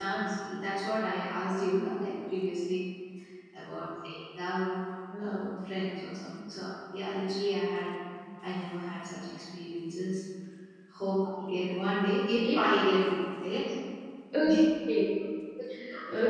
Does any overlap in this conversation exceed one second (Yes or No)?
No